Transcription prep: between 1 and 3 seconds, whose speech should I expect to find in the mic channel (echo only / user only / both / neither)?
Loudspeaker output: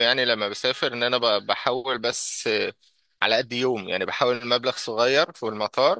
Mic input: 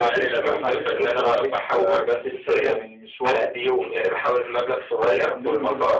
both